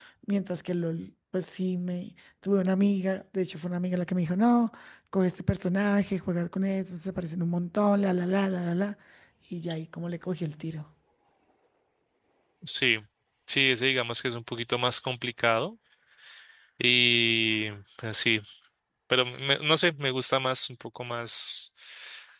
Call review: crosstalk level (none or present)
none